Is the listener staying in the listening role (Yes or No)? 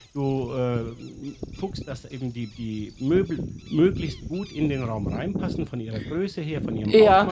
No